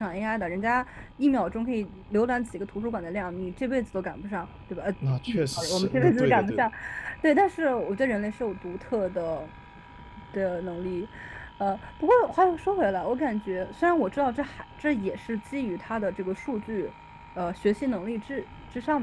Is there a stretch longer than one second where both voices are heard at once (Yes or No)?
Yes